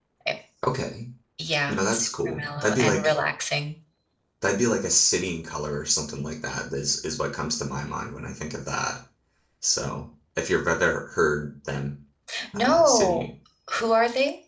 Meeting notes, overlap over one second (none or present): present